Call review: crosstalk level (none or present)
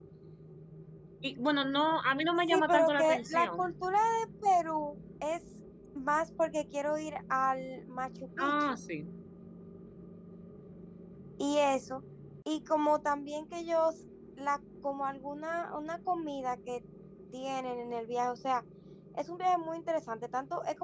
present